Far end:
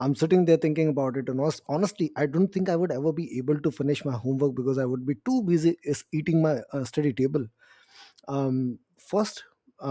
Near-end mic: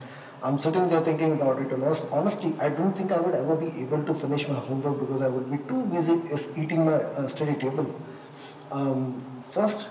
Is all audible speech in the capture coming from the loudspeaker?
Yes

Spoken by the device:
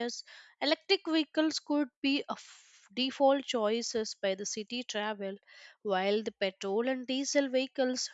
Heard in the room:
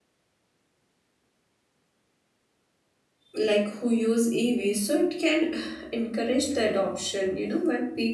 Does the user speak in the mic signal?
Yes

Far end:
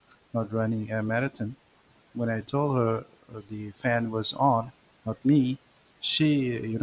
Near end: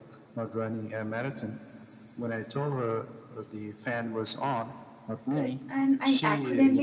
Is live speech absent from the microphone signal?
No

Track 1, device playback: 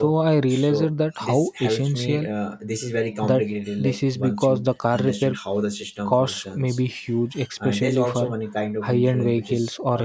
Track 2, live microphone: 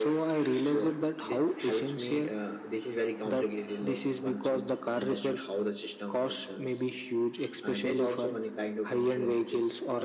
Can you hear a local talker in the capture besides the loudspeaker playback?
No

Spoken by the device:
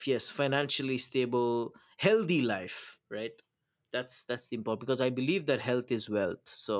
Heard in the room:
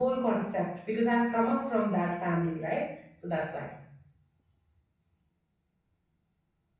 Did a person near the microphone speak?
Yes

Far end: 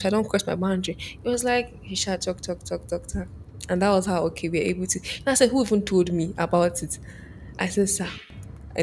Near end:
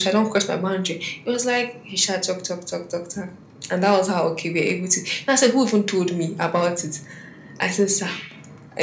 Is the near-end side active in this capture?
No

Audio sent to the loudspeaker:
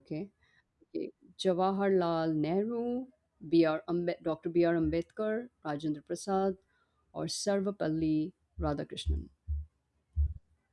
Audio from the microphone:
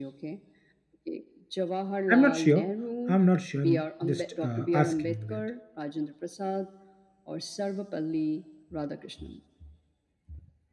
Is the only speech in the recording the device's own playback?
No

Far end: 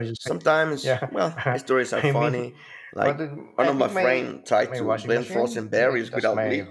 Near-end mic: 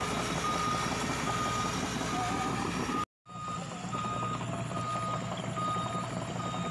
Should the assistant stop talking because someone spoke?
No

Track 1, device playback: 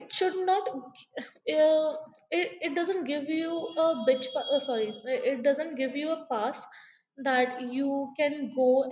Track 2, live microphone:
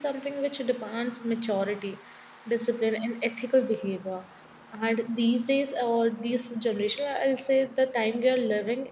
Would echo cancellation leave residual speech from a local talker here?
Yes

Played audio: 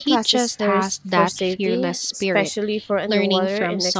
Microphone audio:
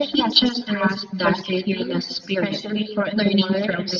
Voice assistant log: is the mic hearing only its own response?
Yes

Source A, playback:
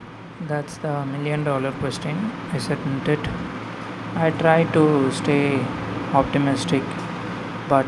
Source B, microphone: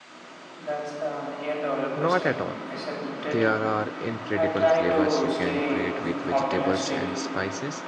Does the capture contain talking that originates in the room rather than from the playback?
Yes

